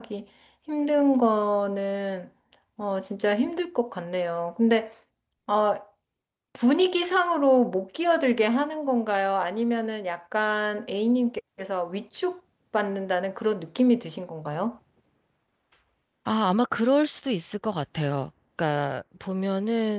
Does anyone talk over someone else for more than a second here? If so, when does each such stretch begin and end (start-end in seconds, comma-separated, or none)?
none